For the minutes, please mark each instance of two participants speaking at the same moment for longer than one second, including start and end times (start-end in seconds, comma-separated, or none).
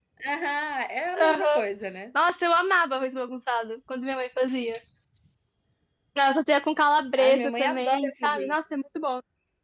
7.2-8.6